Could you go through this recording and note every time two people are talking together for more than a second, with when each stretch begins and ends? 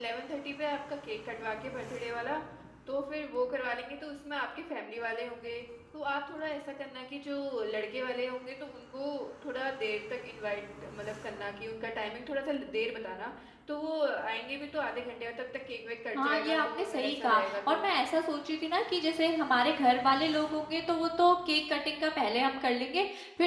16.2-17.8

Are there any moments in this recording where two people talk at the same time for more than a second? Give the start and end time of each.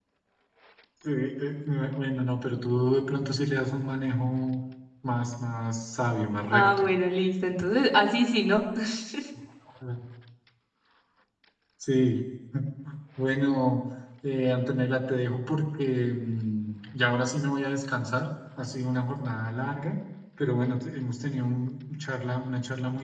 none

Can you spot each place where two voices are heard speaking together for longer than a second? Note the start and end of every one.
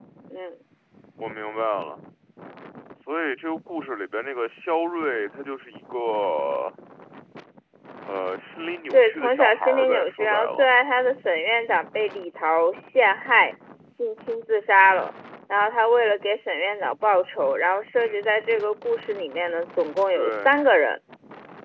8.9-10.7

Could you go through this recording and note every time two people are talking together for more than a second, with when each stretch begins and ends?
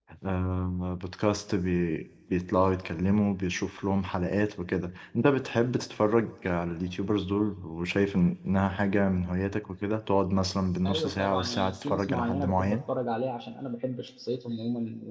10.9-12.8

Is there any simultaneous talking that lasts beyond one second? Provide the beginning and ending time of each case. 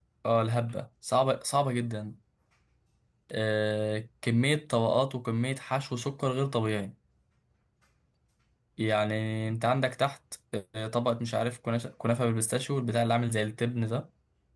none

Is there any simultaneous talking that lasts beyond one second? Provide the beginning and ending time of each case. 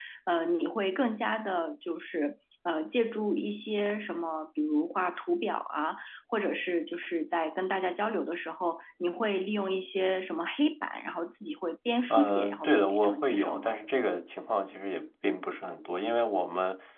12.1-13.8

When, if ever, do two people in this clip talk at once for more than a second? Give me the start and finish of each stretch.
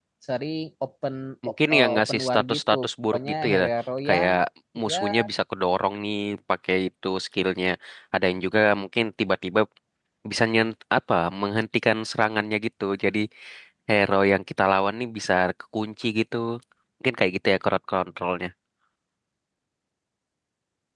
1.7-3.6

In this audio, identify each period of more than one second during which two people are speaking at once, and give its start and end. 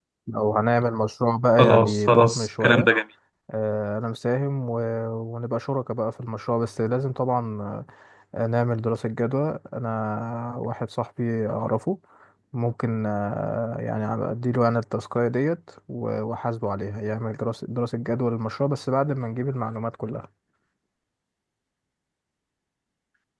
1.6-2.9

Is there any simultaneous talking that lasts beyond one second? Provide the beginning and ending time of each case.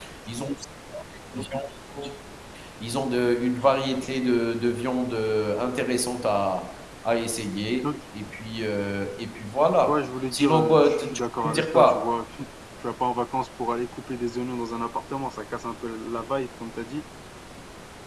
9.9-12.1

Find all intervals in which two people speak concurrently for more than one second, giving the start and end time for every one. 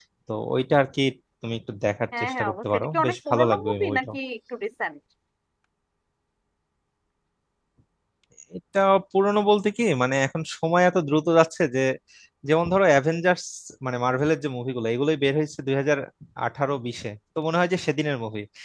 2.2-4.1

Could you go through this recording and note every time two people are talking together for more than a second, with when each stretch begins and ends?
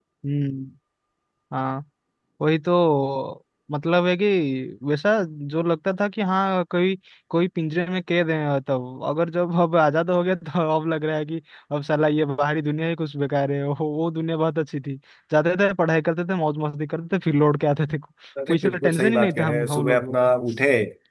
18.5-20.3

